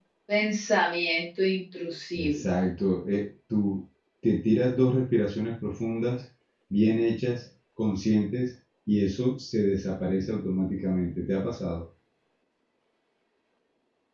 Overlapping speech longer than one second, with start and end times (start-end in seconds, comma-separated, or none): none